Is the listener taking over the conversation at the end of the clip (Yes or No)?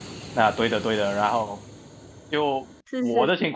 No